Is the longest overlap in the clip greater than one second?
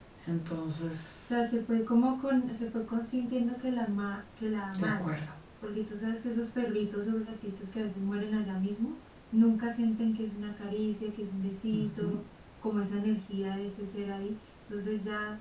No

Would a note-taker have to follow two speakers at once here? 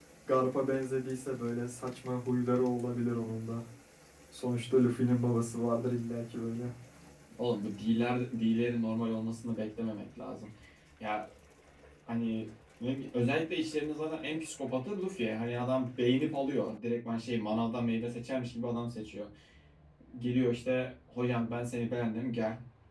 No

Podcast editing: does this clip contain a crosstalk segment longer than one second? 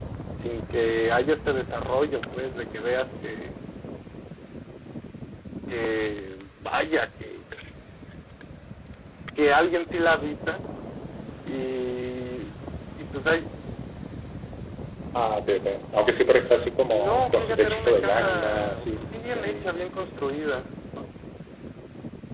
Yes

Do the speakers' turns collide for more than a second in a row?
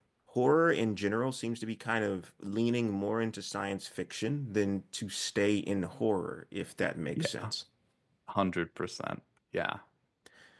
No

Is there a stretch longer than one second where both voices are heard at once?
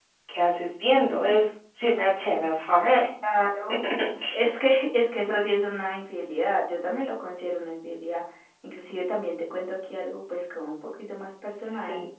No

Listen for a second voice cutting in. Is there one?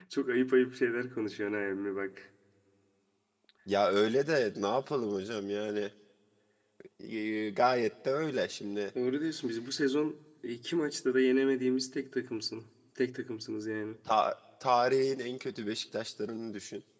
No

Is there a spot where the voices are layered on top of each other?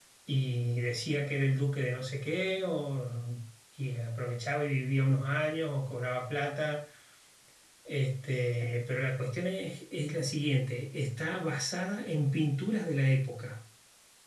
No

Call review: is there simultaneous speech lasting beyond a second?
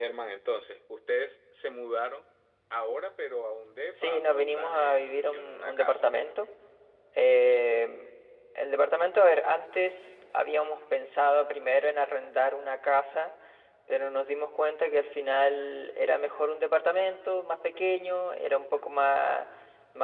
Yes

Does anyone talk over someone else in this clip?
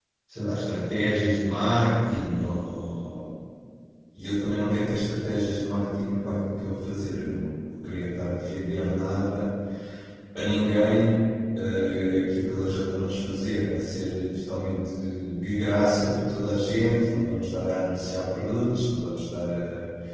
No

